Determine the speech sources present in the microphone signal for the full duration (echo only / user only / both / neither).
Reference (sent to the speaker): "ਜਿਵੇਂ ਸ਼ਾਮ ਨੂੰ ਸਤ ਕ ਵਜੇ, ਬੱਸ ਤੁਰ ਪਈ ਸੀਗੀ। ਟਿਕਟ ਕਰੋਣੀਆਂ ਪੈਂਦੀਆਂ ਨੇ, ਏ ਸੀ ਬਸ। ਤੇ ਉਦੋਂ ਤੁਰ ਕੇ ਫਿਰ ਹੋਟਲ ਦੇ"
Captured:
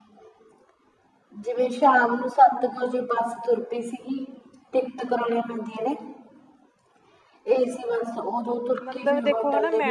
both